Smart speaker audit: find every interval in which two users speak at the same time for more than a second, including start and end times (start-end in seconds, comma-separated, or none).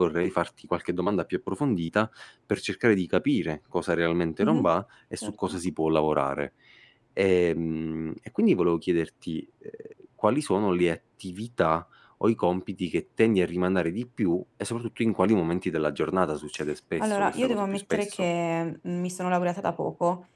17.0-18.2